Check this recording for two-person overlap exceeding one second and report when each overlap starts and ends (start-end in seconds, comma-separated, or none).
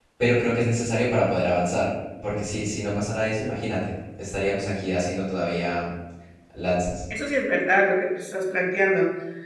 none